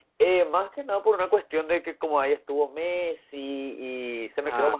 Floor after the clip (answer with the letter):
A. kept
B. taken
A